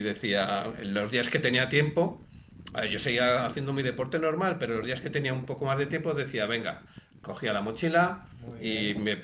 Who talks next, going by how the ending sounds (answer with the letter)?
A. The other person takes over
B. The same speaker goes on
B